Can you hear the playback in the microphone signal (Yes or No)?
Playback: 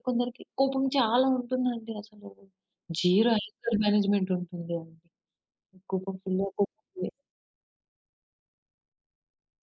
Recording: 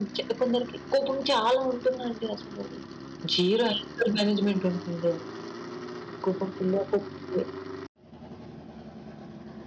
Yes